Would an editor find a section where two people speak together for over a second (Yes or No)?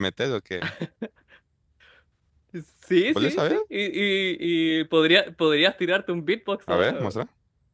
No